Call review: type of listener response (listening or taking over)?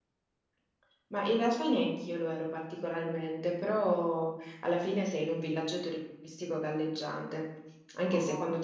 listening